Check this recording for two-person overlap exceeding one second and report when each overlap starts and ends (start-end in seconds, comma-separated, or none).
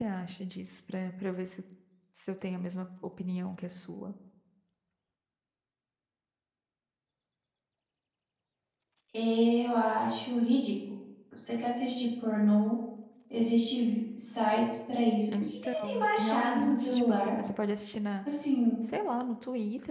15.4-17.3